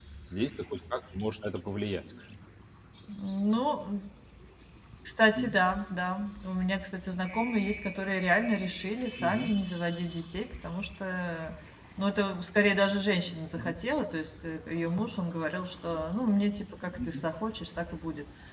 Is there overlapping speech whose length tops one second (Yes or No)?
No